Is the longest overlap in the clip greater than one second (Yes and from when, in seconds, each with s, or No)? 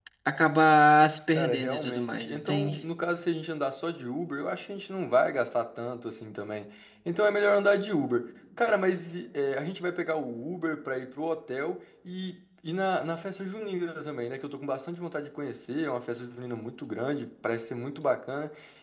Yes, from 1.3 s